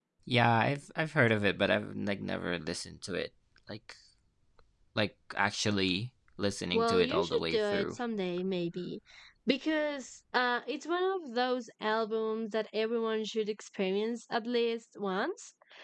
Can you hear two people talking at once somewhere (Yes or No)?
Yes